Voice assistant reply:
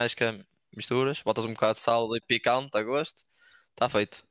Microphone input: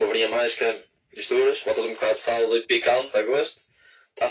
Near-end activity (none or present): none